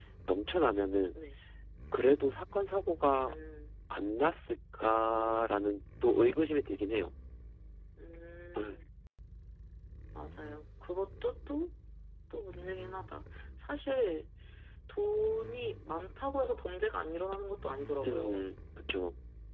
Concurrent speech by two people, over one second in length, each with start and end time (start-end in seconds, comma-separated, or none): none